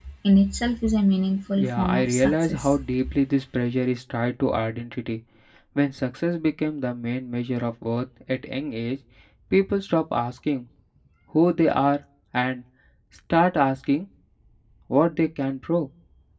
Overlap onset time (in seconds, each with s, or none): 1.6 s